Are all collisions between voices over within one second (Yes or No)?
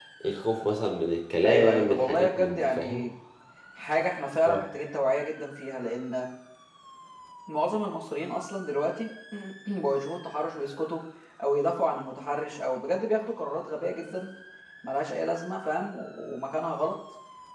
No